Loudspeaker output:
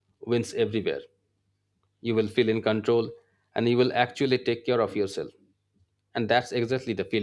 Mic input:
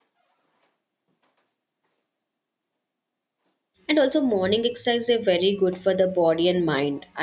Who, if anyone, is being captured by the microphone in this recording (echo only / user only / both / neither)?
user only